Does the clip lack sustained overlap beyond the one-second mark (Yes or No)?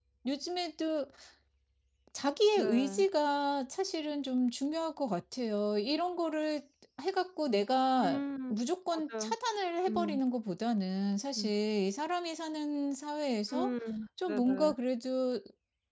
Yes